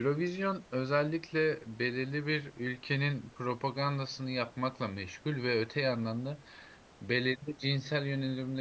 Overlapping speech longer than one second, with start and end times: none

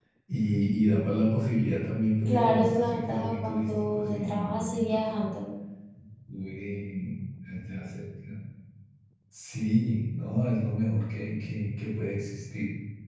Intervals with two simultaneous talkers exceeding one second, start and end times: 2.2-5.0

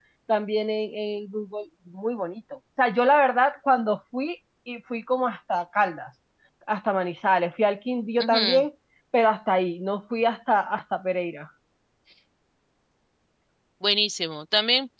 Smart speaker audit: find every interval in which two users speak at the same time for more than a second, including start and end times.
none

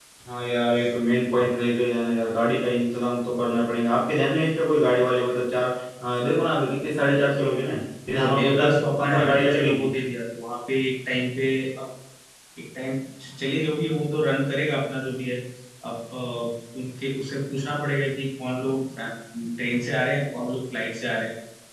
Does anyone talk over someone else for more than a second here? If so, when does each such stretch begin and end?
8.1-9.9

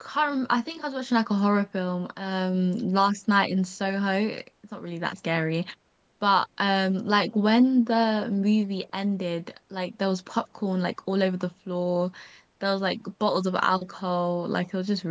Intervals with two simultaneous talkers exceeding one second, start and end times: none

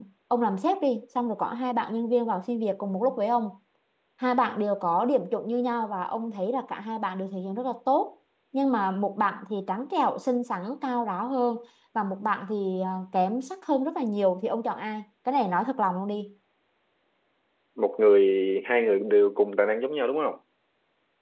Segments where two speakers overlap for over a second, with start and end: none

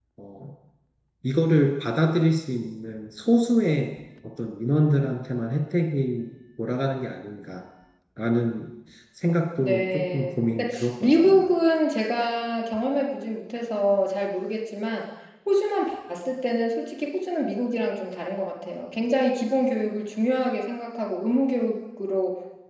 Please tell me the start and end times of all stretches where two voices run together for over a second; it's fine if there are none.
9.6-11.5

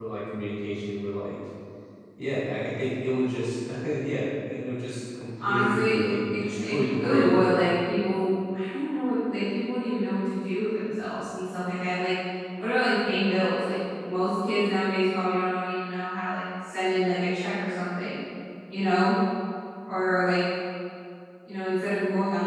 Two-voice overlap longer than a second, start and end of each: 5.5-7.4

